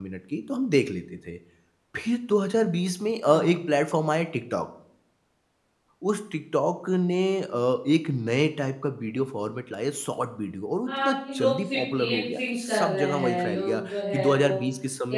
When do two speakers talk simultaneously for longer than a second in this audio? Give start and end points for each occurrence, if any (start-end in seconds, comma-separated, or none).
10.9-14.5